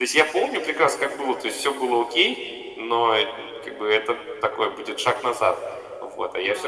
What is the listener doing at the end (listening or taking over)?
taking over